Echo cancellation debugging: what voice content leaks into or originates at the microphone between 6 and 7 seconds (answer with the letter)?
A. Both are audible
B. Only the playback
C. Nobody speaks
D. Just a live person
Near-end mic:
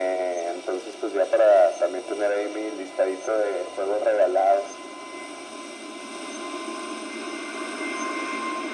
C